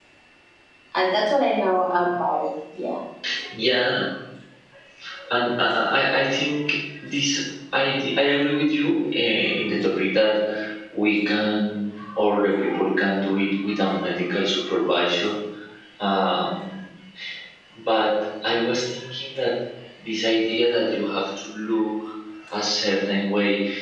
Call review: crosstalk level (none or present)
none